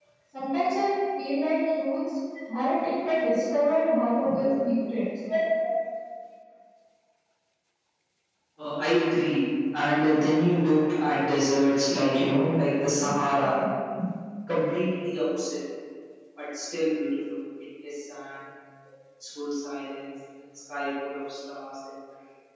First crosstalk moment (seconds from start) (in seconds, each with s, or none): none